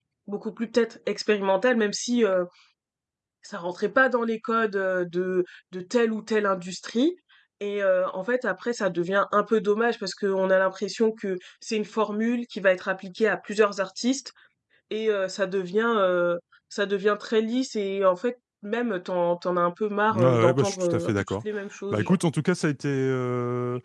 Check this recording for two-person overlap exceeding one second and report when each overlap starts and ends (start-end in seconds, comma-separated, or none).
20.1-21.3